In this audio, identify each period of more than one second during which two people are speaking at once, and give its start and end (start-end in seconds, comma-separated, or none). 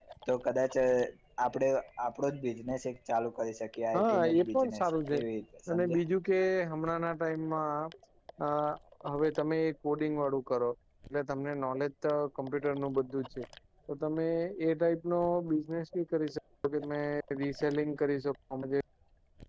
3.9-5.2